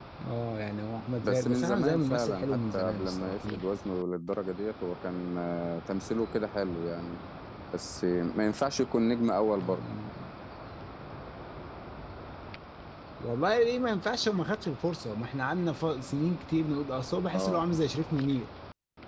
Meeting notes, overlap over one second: present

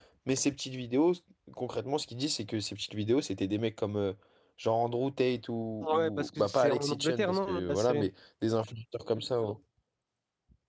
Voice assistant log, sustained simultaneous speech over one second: present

